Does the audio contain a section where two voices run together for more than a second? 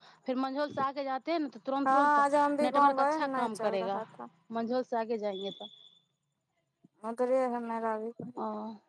Yes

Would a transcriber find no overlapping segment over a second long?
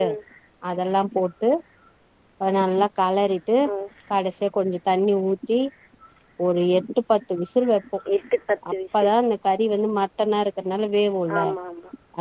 Yes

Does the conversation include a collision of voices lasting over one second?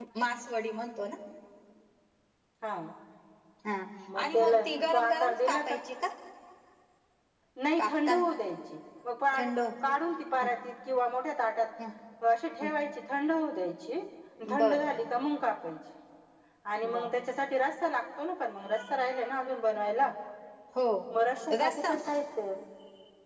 Yes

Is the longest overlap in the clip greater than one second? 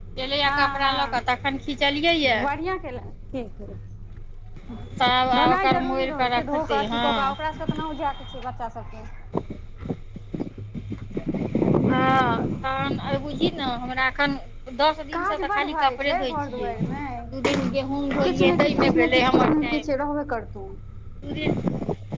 Yes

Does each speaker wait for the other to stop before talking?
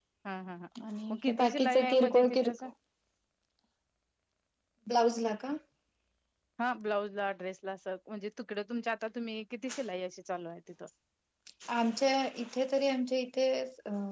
No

